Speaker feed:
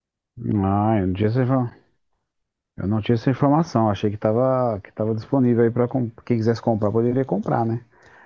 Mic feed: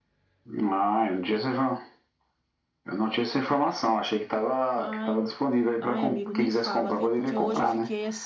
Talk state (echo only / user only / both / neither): both